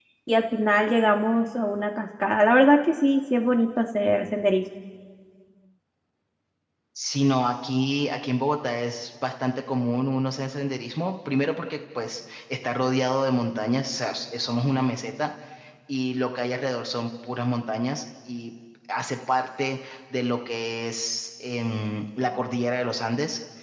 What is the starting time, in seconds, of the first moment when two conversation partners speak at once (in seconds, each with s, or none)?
none